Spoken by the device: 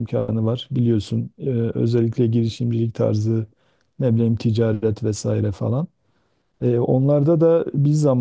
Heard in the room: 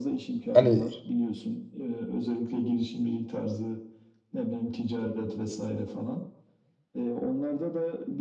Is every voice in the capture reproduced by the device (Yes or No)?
No